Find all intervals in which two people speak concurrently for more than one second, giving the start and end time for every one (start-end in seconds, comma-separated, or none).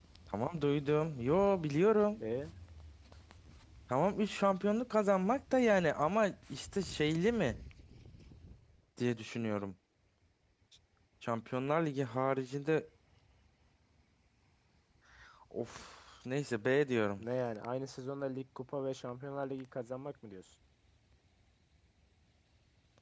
none